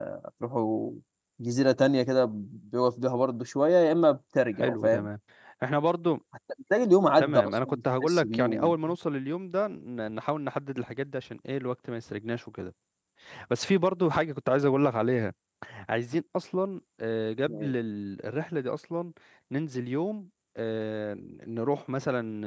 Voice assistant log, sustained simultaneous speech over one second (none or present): present